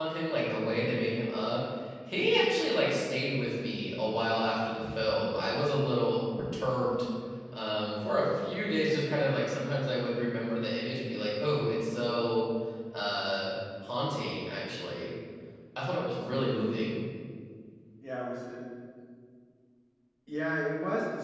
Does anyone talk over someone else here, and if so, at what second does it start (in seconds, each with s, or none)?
none